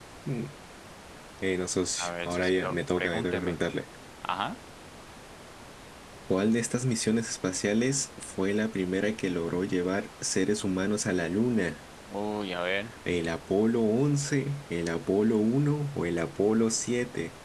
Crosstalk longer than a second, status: present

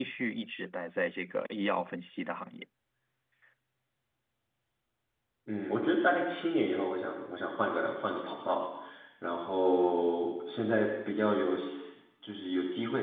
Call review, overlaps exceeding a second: none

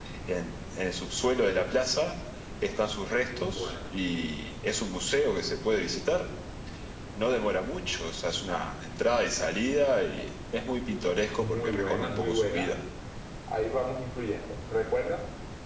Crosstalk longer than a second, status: present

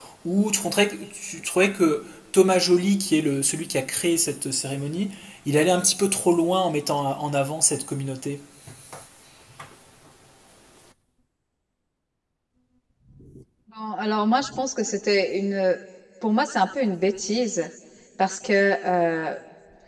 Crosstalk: none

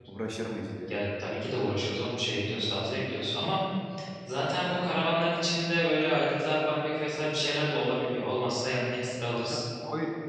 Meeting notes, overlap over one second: none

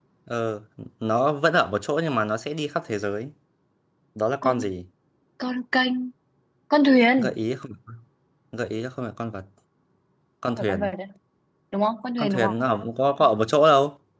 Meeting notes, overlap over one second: none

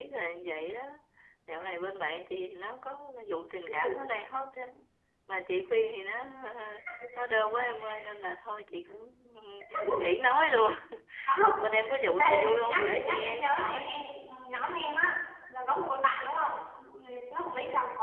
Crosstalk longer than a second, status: present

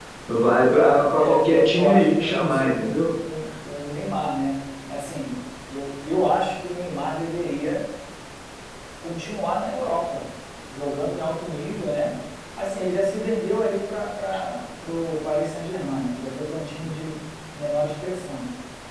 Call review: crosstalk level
present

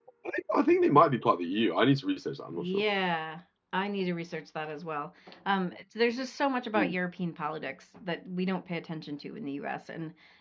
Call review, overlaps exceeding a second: none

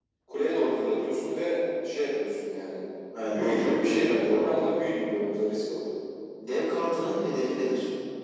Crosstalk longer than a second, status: present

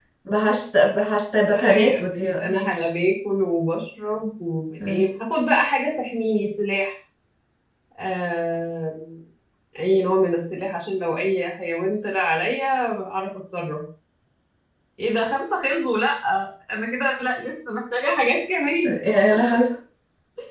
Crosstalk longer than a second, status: present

